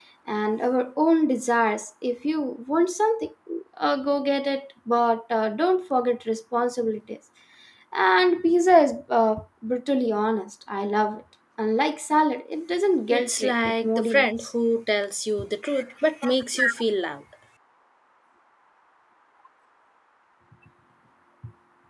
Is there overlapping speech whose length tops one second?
Yes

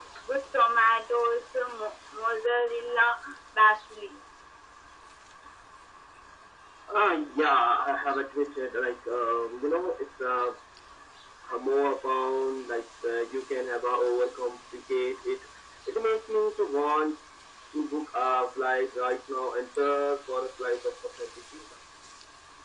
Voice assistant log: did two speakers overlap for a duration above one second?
No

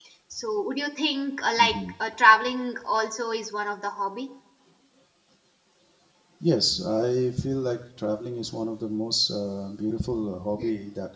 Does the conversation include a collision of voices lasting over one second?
No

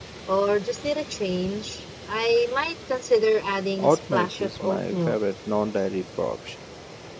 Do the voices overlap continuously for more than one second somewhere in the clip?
Yes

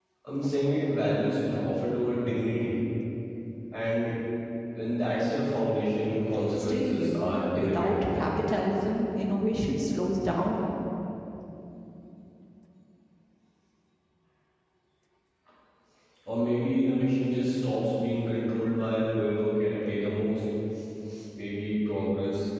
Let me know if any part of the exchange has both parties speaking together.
Yes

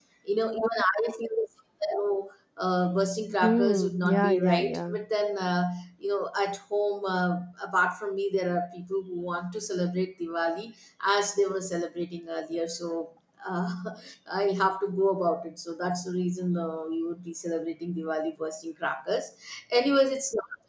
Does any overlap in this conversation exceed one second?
Yes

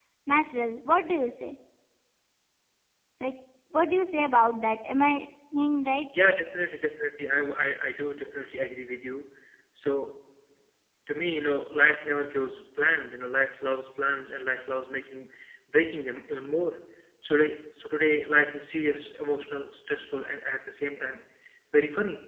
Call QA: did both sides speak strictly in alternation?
Yes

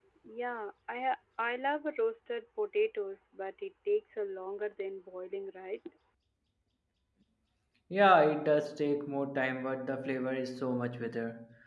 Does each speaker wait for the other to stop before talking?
Yes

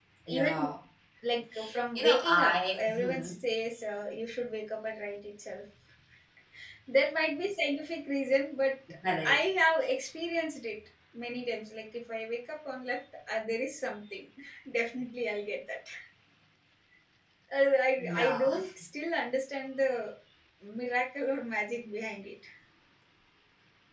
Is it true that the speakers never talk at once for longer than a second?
No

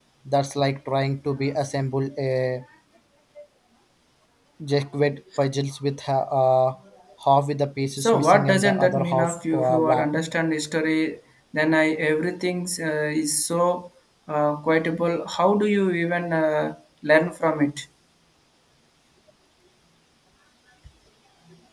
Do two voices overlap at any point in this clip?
Yes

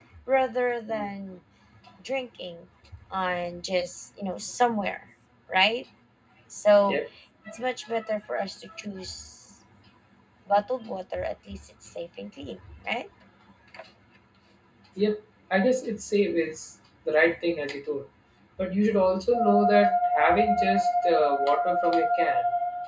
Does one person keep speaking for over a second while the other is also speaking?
No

